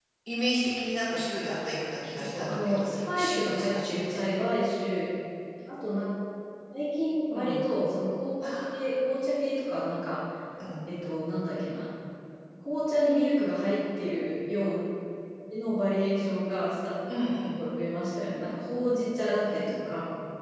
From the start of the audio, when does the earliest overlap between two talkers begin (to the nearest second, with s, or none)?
2 s